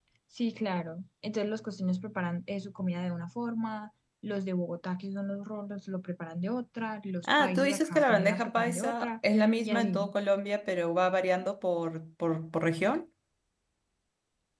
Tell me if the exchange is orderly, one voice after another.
No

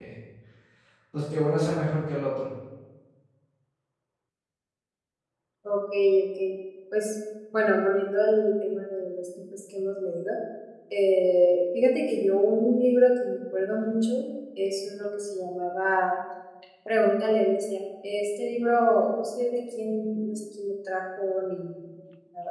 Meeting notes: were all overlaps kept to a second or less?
Yes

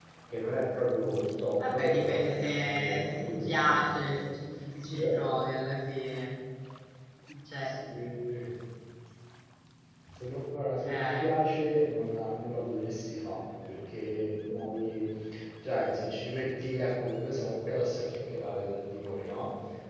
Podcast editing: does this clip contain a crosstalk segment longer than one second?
Yes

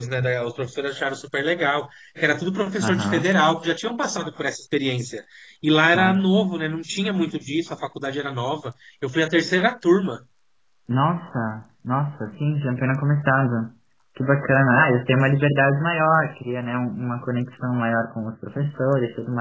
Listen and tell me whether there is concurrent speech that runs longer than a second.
No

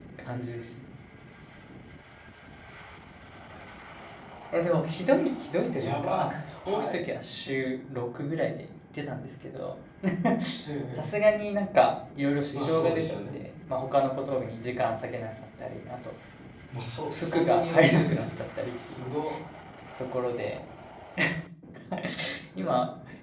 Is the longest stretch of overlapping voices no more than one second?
No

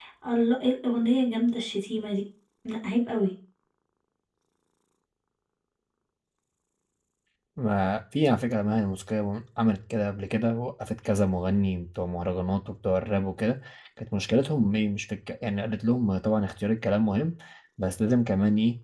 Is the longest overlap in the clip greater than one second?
No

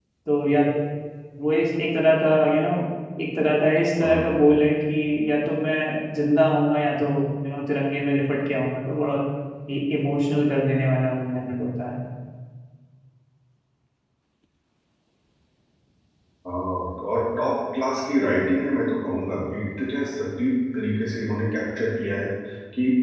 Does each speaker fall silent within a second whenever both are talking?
Yes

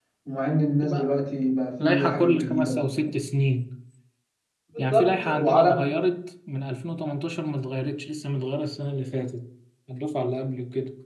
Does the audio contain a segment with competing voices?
Yes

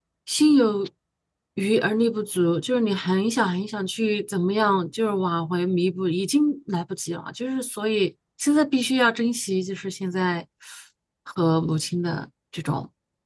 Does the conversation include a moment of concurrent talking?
No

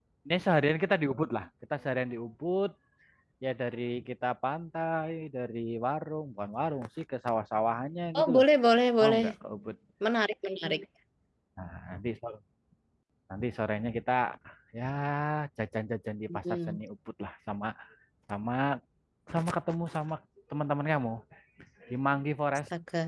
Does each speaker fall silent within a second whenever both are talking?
Yes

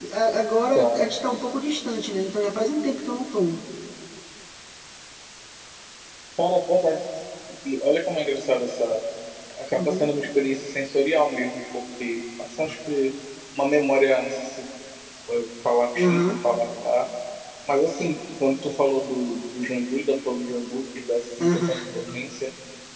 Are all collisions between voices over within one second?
Yes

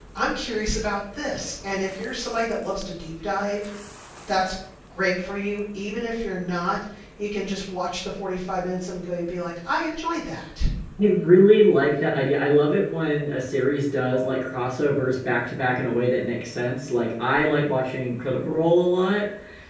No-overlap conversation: Yes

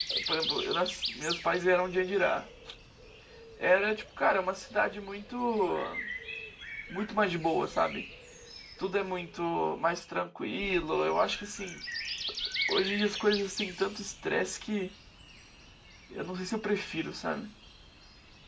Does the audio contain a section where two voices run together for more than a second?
No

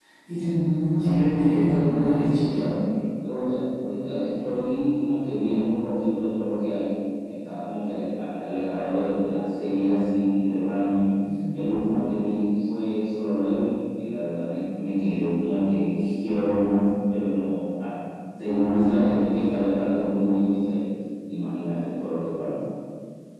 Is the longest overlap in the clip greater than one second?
Yes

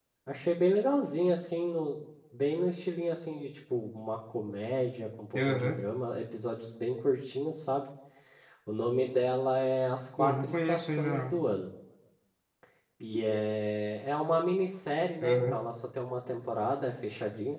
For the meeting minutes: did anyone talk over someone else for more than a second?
Yes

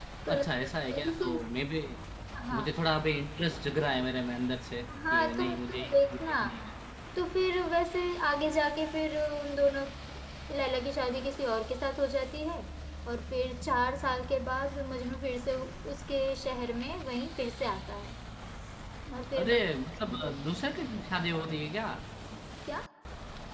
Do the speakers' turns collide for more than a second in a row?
Yes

